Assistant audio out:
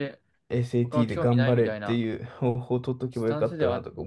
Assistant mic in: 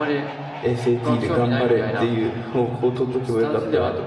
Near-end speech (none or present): none